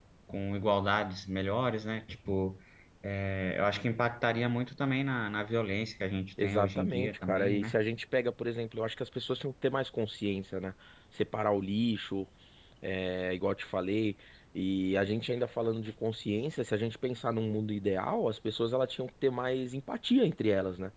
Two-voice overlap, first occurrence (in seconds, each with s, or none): 6.4 s